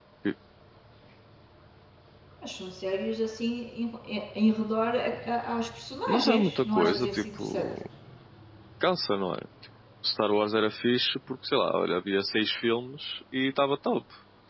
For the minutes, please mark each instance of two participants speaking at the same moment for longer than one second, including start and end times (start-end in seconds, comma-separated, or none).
6.1-7.7